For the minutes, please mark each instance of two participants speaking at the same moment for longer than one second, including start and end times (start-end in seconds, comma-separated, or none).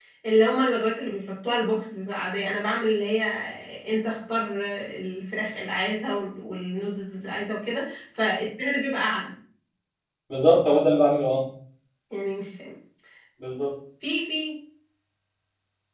none